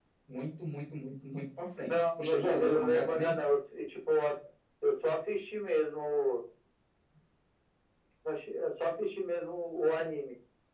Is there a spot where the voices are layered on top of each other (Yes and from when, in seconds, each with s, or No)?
Yes, from 1.8 s